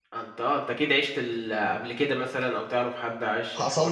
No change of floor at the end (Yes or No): No